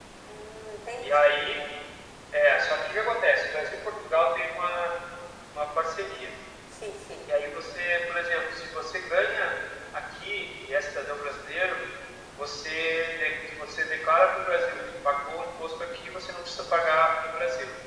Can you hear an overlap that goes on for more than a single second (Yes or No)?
No